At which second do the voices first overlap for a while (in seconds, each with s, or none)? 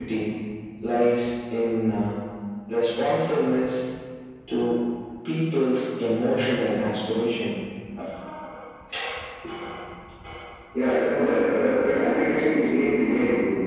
none